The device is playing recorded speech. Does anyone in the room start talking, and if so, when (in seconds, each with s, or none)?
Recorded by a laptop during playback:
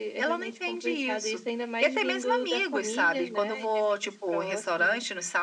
none